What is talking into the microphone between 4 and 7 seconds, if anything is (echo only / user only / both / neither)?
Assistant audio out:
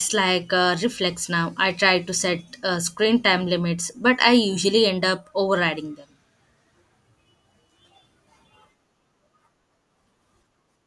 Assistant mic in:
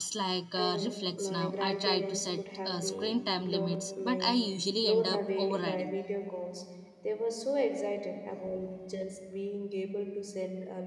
both